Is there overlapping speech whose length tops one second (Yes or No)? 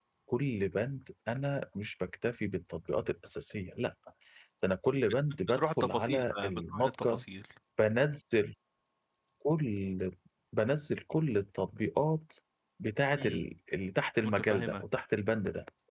Yes